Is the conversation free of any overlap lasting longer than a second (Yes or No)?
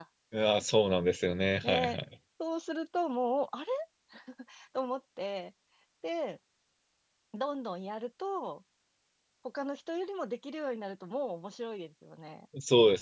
Yes